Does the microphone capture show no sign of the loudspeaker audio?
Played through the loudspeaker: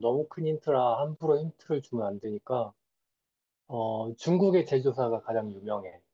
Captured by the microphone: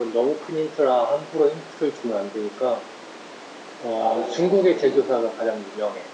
No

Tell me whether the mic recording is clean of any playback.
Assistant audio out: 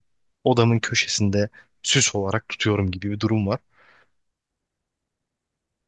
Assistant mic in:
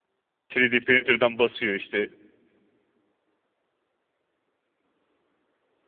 Yes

